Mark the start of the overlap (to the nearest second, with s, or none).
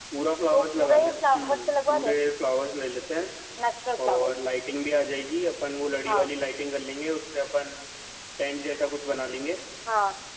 1 s